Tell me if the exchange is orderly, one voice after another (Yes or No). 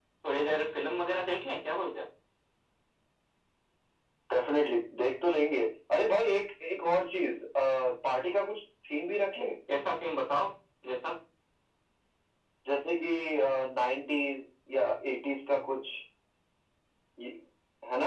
Yes